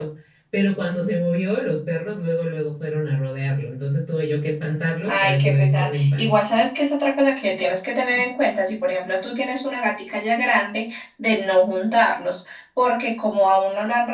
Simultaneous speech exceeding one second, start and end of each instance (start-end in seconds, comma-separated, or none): 5.0-6.3